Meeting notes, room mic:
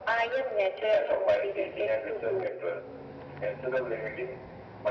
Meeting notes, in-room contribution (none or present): none